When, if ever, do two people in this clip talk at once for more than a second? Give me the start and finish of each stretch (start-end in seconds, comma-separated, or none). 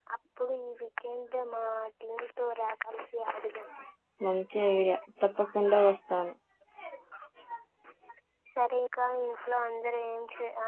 none